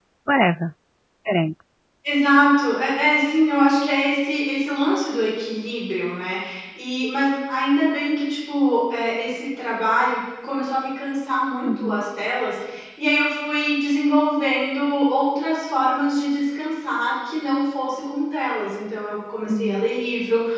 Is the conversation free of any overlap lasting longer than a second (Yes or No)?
Yes